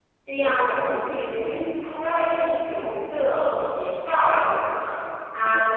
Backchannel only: Yes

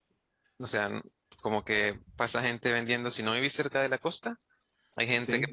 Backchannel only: Yes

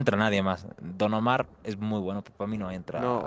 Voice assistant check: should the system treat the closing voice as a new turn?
Yes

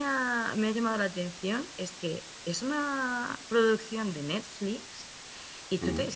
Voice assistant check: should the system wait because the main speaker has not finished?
Yes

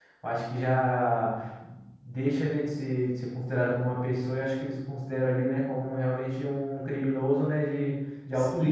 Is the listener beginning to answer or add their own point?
Yes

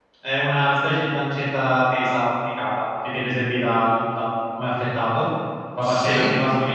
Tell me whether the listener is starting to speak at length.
No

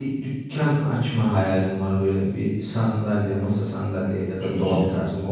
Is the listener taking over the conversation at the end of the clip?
No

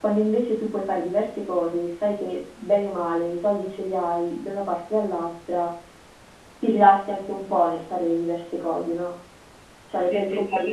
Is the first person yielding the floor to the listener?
Yes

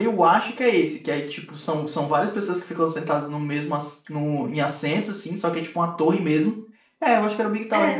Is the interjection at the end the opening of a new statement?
Yes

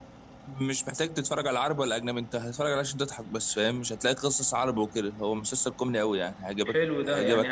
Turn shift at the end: Yes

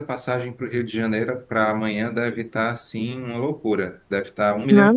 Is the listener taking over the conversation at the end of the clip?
Yes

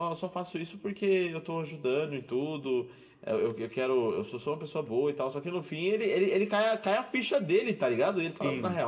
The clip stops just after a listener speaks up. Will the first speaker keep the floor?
Yes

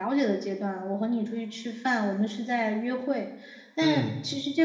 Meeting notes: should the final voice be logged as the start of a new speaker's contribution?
No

